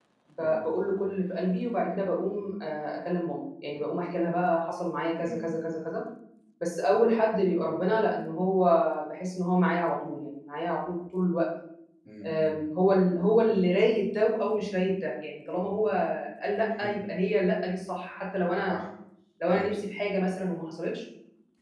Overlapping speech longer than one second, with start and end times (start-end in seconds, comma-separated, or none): none